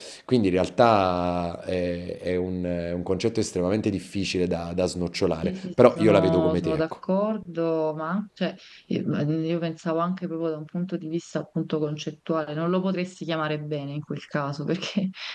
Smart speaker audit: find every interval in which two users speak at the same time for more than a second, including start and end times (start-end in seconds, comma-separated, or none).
5.5-6.8